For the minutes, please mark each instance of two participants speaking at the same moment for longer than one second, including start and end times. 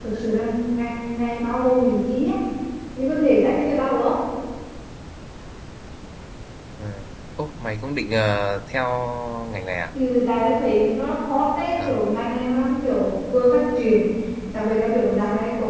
none

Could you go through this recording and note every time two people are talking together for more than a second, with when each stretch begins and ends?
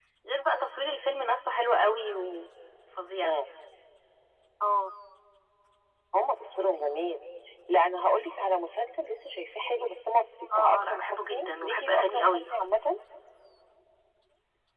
10.6-12.4

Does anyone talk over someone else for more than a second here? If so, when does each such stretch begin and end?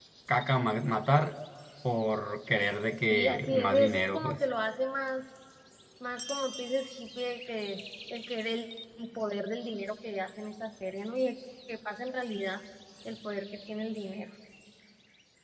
3.1-4.4

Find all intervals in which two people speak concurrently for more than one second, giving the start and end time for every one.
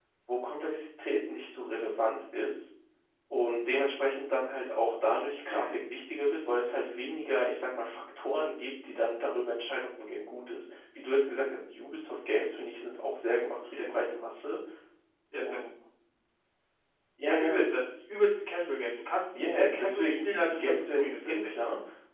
19.3-21.5

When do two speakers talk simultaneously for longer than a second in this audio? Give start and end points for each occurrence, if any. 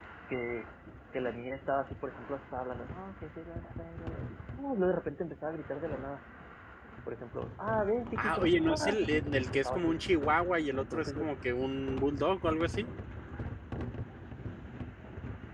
8.2-10.0

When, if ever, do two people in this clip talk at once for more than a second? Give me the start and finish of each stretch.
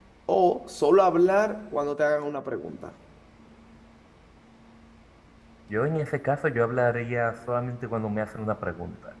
none

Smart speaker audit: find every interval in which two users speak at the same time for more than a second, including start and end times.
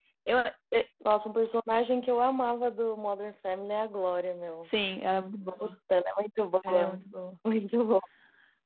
none

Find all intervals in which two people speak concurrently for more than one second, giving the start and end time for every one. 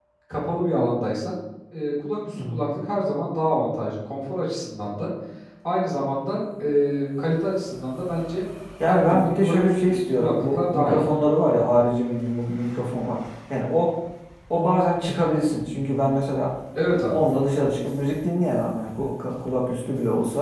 8.9-11.1

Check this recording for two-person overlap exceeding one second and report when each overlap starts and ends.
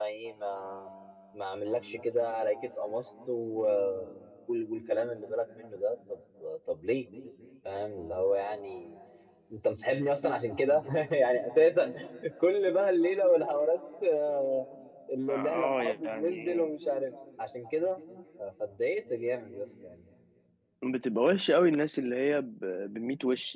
15.3-16.6

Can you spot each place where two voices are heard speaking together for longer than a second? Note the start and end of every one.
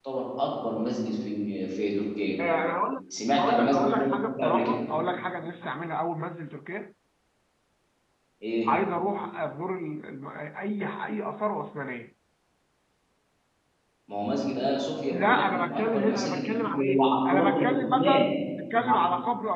3.4-4.8, 15.1-18.3

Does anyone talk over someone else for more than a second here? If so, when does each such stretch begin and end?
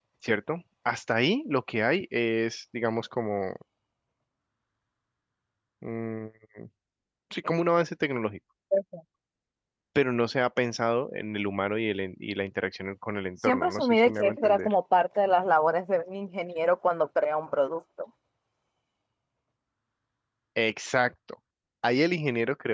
13.5-14.7

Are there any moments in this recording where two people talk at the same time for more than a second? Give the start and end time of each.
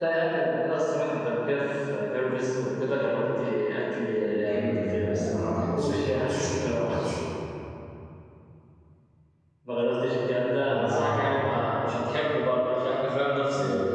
4.5-7.0

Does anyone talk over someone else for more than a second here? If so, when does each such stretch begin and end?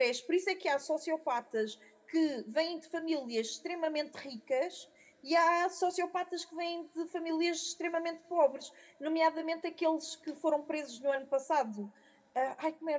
none

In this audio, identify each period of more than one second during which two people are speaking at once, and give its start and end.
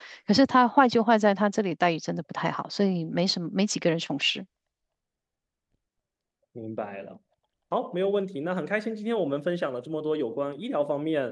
none

